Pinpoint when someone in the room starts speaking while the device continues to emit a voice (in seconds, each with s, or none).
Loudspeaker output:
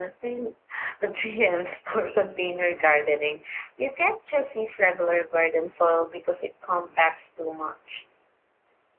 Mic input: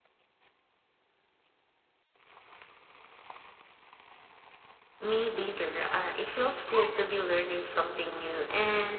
5.0 s